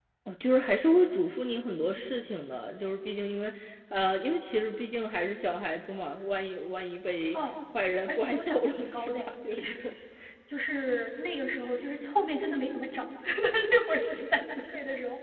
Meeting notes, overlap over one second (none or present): present